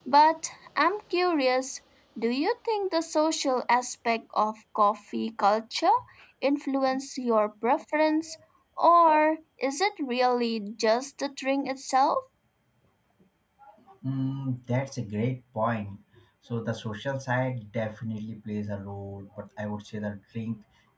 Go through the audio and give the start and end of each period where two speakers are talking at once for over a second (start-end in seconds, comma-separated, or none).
none